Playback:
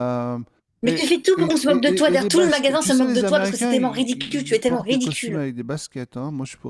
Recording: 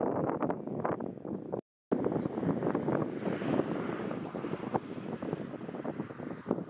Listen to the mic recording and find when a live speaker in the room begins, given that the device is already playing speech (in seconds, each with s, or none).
none